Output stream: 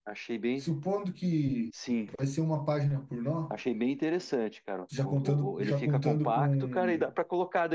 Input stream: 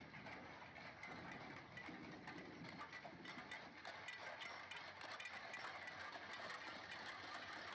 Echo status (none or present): none